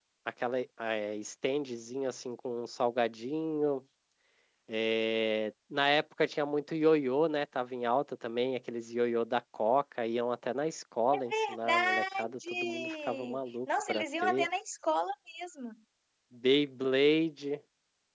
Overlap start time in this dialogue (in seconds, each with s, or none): 11.1 s